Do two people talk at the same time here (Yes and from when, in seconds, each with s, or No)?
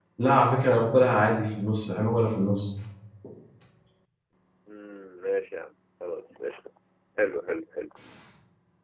No